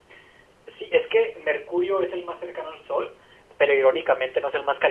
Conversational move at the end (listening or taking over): listening